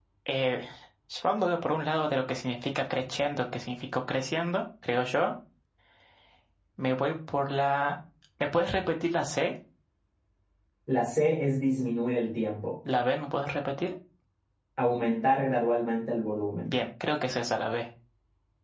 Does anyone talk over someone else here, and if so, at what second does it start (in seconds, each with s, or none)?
none